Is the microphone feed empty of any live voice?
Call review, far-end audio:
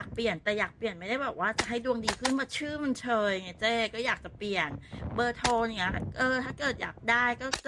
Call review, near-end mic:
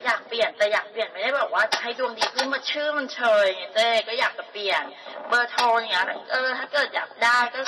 Yes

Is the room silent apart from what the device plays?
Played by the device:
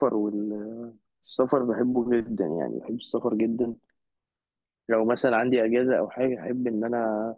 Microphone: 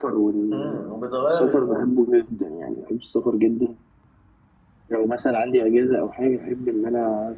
No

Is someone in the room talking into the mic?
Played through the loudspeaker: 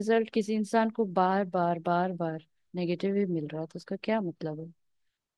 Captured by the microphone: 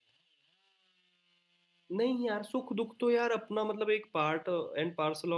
Yes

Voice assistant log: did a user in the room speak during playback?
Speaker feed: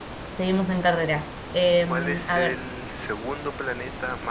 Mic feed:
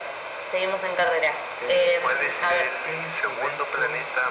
Yes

